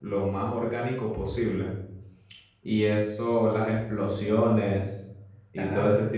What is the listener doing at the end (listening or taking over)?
listening